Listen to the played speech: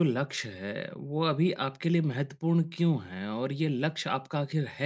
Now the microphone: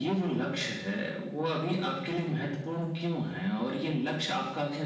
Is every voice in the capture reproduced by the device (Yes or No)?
Yes